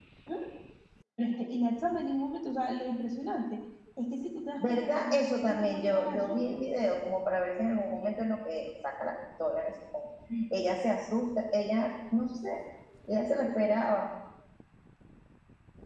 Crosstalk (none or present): present